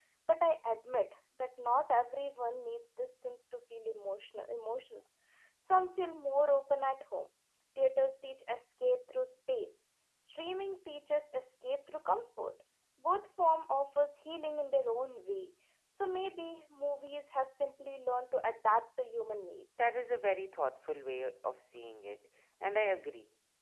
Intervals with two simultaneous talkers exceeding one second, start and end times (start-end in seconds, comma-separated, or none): none